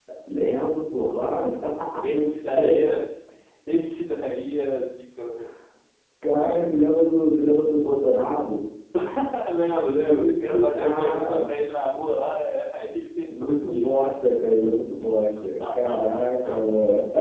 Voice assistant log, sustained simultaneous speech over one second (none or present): present